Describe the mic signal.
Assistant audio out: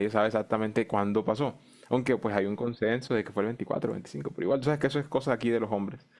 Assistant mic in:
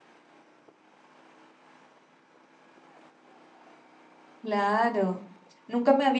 user only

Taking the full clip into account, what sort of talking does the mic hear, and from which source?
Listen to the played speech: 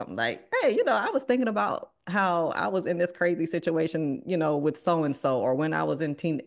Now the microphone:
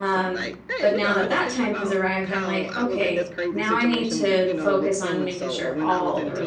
both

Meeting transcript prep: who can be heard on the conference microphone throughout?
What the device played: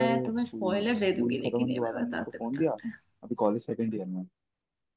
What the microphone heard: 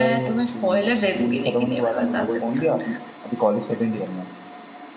both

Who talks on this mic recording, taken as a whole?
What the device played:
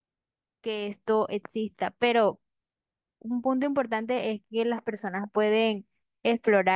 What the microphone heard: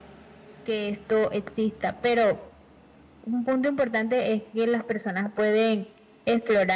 echo only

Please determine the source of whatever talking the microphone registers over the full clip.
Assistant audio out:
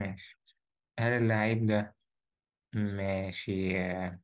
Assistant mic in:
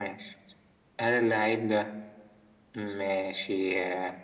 echo only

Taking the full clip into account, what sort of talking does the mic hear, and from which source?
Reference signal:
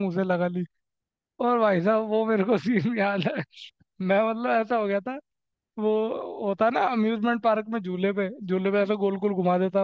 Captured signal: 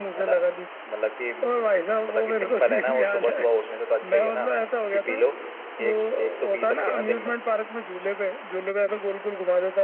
both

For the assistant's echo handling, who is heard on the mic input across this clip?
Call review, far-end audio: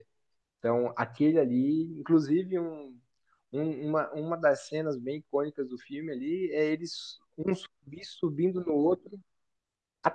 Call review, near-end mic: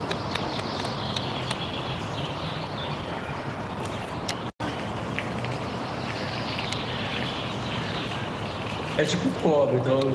user only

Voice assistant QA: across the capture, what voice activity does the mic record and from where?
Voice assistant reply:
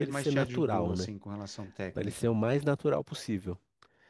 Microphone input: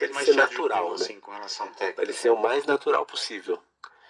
echo only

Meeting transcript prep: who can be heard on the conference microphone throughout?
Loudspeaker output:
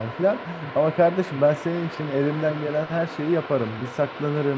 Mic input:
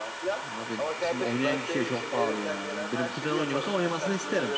both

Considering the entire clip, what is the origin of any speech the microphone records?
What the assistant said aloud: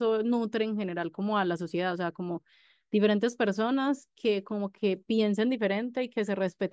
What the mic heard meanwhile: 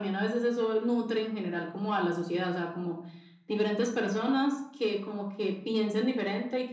echo only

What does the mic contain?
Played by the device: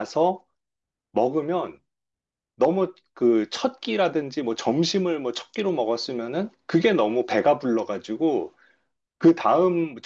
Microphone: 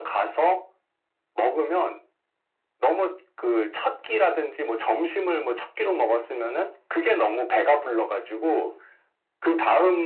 echo only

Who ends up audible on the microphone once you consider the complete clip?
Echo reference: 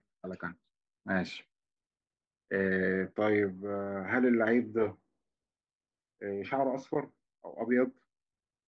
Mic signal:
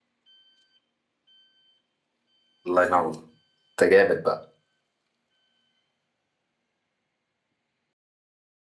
user only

